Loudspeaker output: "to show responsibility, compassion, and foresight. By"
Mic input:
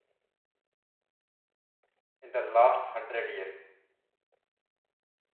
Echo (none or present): none